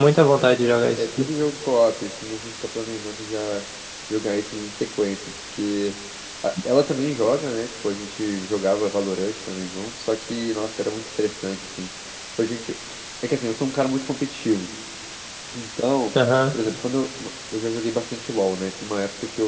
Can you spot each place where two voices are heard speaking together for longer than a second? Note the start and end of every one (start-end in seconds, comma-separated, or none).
none